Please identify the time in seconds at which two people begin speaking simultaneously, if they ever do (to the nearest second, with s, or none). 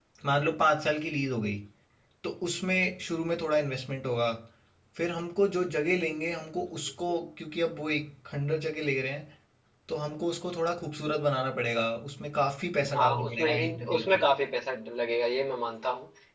13 s